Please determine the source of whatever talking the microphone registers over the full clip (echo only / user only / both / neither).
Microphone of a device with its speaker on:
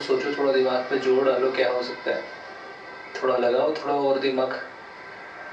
echo only